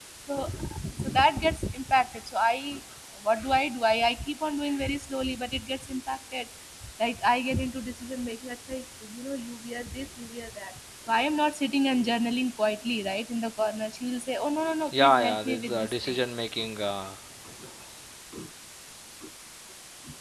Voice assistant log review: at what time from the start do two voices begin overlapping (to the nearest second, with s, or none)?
15 s